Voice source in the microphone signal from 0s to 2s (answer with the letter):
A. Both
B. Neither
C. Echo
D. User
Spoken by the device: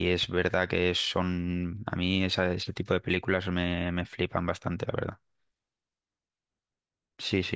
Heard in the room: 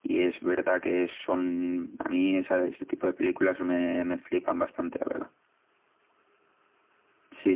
C